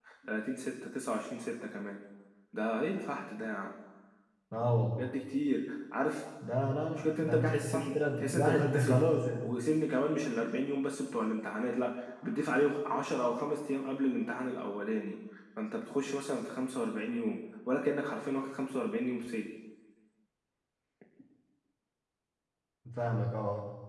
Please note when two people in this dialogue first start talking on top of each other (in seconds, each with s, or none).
6.9 s